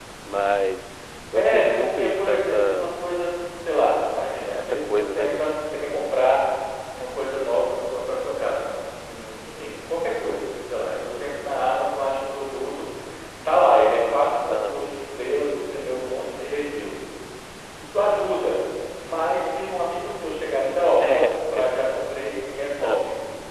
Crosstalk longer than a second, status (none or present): present